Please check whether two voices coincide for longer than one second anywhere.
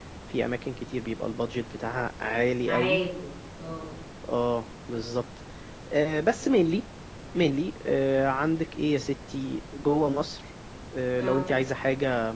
No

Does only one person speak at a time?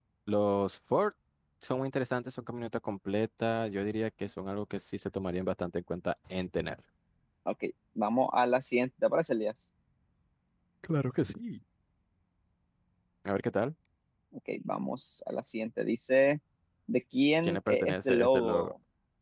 No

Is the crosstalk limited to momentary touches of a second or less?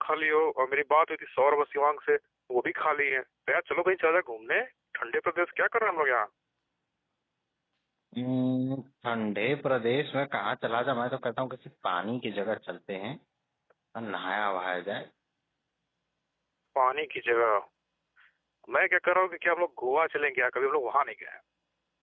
Yes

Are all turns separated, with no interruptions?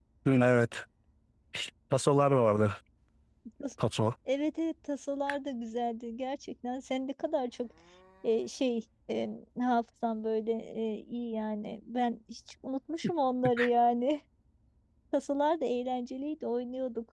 Yes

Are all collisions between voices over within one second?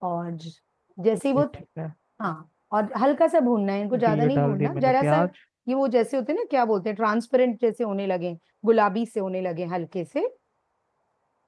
No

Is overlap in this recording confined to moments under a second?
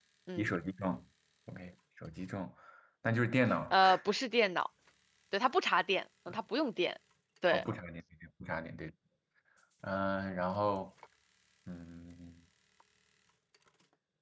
Yes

